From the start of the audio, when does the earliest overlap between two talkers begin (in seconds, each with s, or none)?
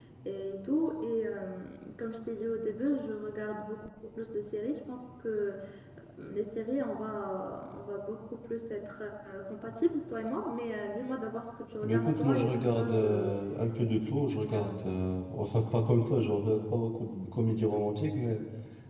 11.8 s